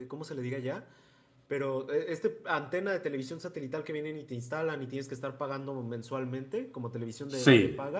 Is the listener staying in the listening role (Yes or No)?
Yes